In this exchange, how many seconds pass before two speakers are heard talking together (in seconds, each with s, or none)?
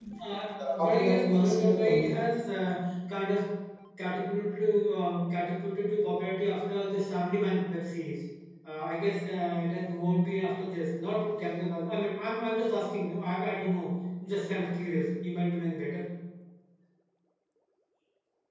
0.6 s